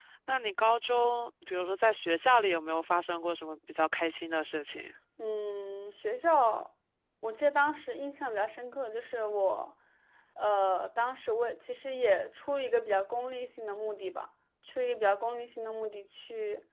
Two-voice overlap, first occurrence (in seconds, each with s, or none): none